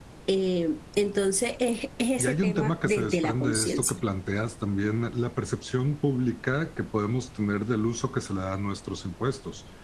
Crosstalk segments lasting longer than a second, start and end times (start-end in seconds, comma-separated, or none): 2.2-4.0